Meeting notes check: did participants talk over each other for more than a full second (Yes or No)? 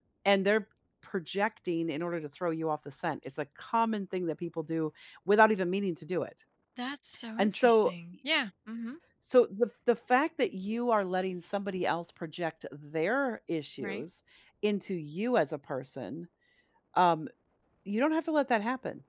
No